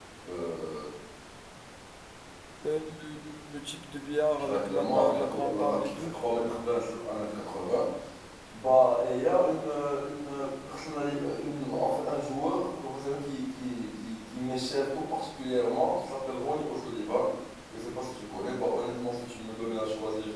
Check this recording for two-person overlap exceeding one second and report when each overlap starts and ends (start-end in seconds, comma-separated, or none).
4.3-6.1